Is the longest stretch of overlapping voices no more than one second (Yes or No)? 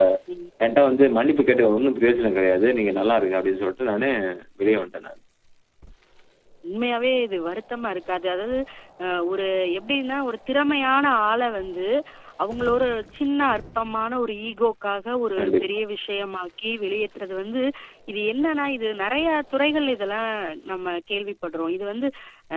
Yes